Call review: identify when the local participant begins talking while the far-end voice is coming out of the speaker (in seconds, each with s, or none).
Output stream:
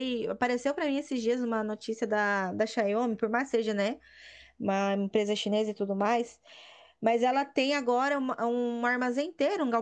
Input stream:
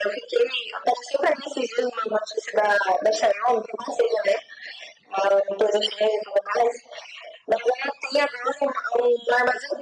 none